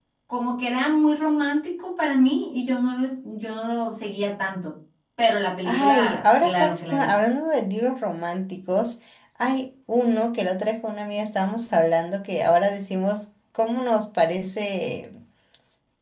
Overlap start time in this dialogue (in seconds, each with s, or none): 5.6 s